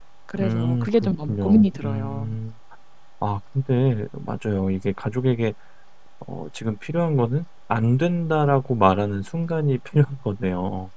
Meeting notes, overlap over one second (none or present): present